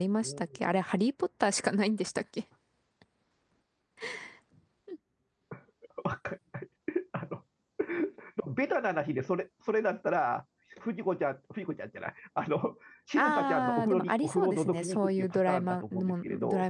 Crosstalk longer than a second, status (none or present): present